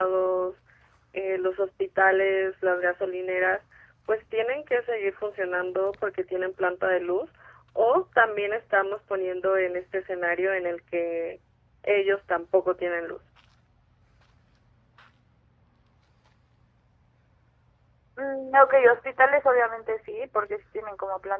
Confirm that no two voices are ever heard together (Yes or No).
Yes